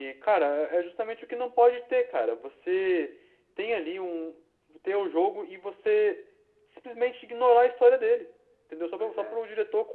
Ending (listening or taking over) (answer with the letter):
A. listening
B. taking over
A